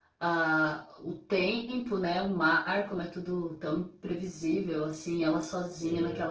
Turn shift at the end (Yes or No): No